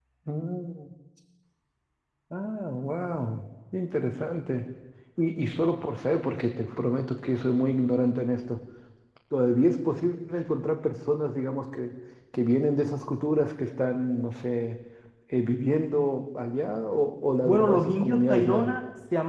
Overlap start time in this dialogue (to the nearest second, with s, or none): 17 s